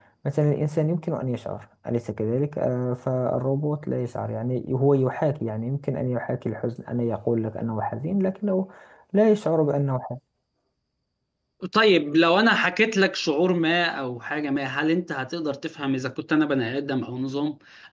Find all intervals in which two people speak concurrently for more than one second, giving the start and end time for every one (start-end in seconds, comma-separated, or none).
none